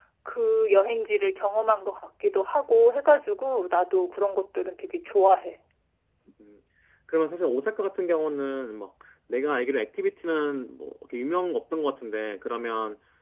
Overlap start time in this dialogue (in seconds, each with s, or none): none